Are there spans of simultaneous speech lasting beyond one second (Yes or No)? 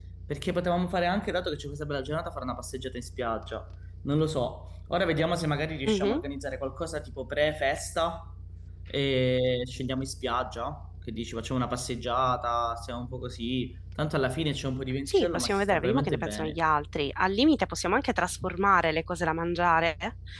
Yes